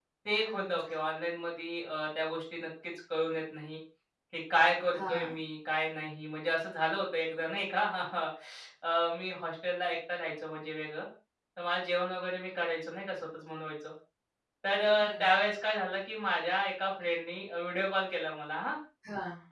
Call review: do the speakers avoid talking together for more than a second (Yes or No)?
Yes